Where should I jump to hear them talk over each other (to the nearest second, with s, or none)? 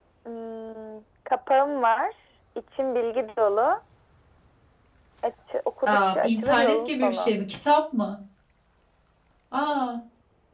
6 s